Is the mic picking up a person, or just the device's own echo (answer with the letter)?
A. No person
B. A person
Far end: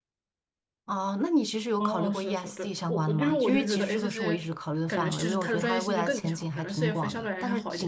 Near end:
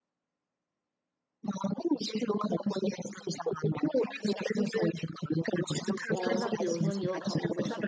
B